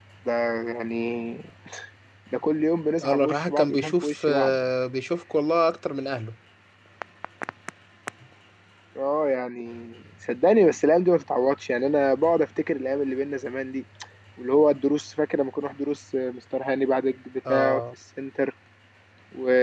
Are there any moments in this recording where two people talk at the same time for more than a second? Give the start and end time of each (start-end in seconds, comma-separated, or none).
3.0-4.5